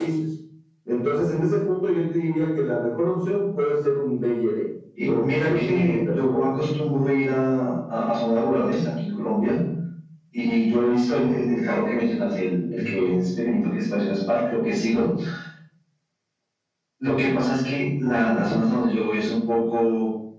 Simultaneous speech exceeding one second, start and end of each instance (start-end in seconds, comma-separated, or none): 5.0-6.6